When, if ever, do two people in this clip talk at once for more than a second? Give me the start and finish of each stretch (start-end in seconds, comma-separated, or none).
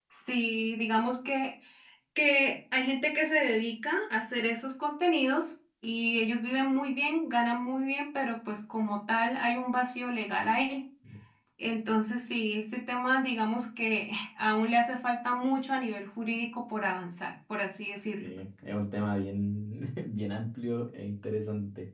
none